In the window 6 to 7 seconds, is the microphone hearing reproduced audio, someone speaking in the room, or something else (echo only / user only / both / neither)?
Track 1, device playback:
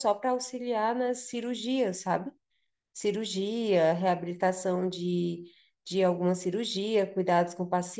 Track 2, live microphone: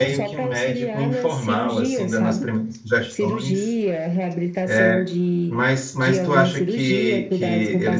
both